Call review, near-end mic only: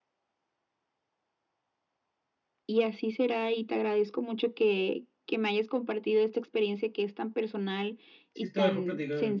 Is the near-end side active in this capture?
Yes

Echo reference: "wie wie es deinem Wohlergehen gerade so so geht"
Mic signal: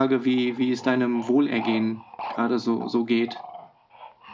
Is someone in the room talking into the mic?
No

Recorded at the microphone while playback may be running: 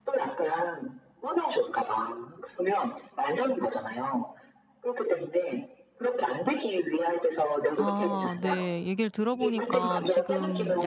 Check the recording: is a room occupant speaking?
Yes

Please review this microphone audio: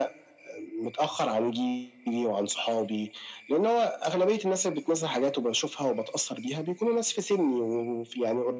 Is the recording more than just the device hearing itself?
No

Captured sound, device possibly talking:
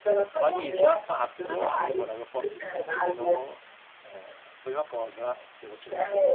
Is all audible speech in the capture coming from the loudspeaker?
No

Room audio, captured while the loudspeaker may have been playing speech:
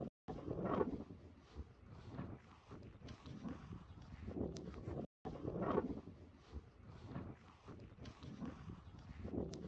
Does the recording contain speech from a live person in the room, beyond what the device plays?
No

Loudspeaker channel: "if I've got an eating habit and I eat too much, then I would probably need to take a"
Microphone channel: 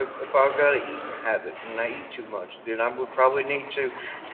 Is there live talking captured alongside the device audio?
No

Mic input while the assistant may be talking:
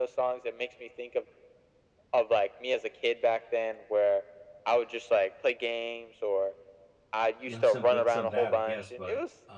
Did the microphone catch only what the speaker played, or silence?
No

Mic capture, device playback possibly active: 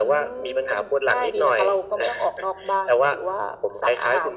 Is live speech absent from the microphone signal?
Yes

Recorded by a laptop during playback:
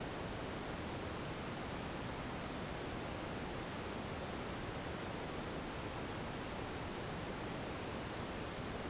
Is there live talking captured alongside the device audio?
No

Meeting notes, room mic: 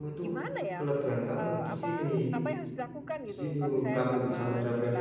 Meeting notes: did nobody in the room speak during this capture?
No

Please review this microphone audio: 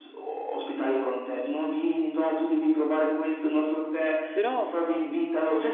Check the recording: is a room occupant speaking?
Yes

